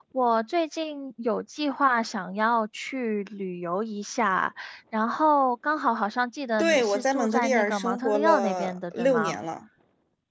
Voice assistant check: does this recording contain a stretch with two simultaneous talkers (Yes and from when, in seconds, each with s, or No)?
Yes, from 6.6 s